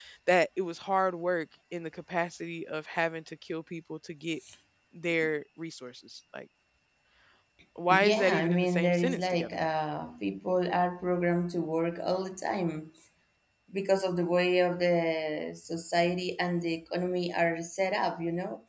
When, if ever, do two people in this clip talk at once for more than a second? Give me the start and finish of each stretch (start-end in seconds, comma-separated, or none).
7.9-9.6